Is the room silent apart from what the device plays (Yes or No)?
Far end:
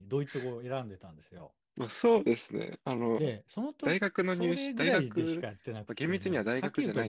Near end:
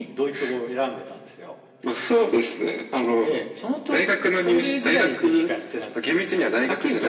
Yes